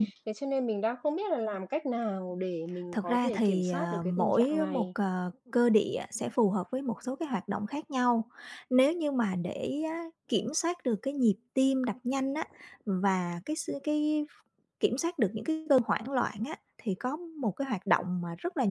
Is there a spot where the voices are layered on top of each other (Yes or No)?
Yes